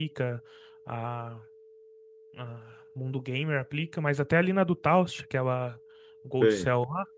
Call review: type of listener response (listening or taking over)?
listening